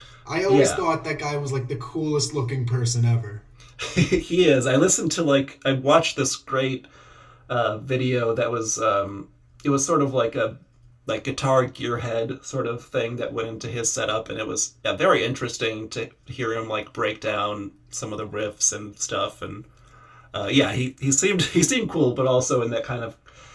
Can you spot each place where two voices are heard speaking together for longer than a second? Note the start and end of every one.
none

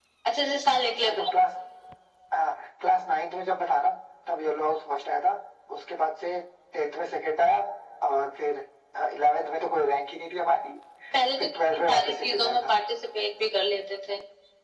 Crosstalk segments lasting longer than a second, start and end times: 11.4-12.7

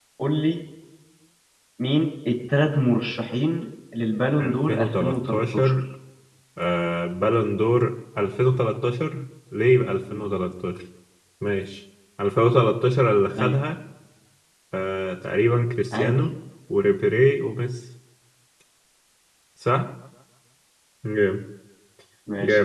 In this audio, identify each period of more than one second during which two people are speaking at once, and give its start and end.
4.4-5.7

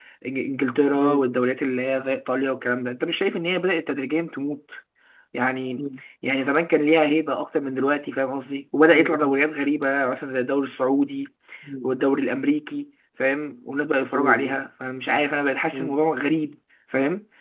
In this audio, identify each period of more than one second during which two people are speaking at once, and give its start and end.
none

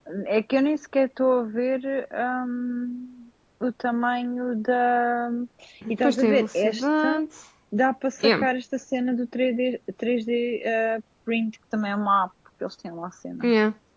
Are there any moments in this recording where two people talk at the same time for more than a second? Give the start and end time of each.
5.9-7.2

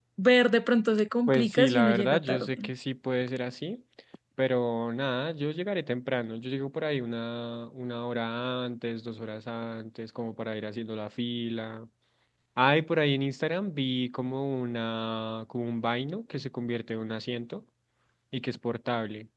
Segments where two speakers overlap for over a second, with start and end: 1.3-2.6

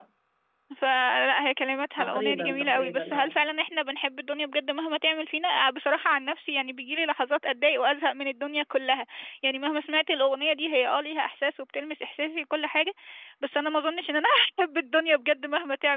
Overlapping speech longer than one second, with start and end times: 2.0-3.4

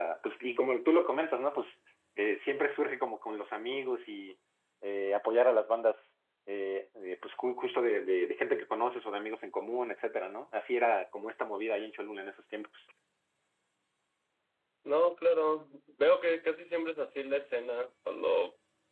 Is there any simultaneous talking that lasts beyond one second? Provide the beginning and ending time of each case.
none

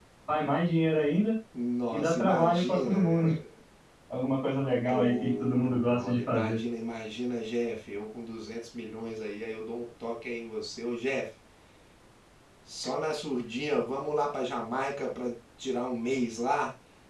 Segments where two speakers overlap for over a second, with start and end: 1.9-3.3, 5.2-6.6

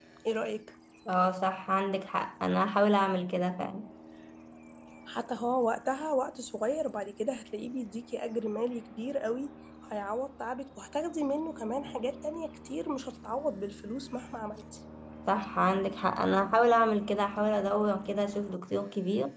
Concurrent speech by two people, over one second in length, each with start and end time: none

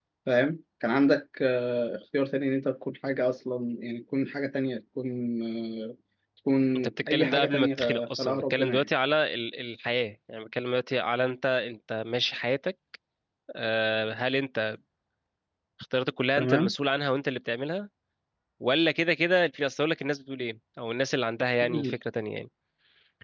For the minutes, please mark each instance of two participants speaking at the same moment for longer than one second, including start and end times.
6.8-8.9

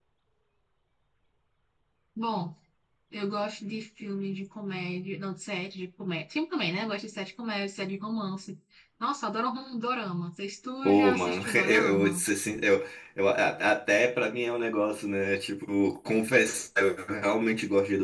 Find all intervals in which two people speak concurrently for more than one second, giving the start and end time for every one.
10.8-12.2

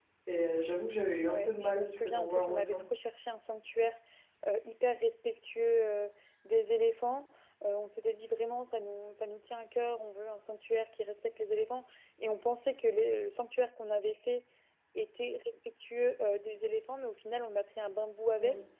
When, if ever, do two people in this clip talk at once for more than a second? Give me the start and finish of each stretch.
1.2-2.8

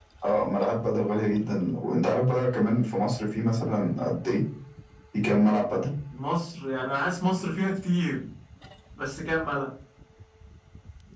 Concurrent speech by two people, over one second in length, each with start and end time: none

